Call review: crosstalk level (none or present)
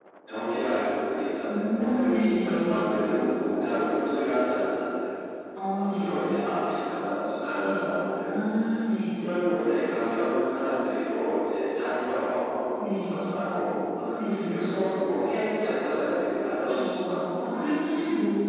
present